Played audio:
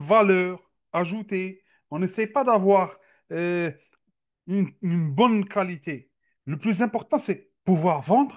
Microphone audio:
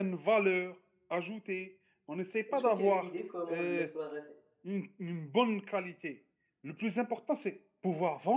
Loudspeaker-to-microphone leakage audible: Yes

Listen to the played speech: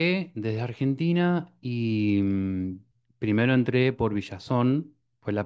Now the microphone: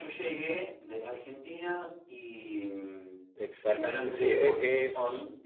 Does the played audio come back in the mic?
Yes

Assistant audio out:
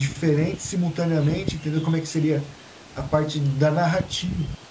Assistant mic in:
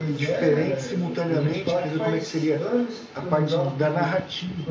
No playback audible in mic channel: No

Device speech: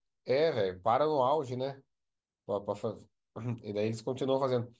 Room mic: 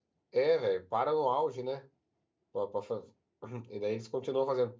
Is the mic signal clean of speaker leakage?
No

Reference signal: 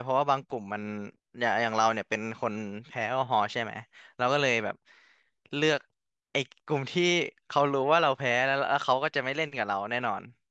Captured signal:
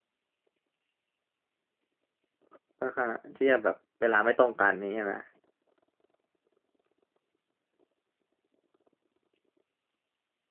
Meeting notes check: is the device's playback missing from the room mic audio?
Yes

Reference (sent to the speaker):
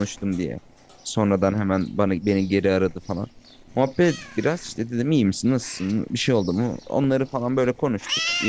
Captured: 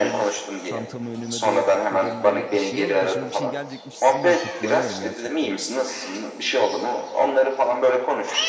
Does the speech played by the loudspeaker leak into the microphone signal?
Yes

